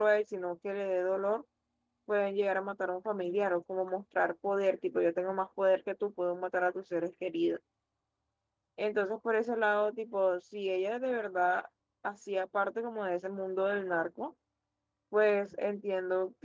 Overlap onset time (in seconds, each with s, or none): none